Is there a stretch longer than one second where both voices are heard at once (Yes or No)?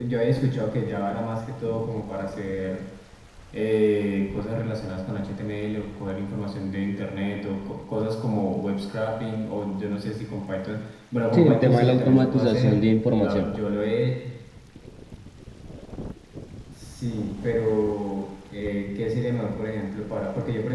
Yes